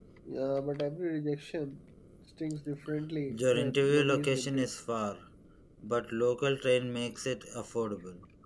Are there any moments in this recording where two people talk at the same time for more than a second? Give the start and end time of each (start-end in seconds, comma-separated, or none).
3.3-4.7